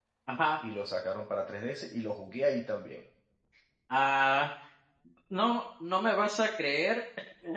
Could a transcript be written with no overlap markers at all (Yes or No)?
Yes